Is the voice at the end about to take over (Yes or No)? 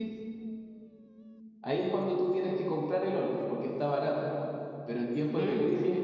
No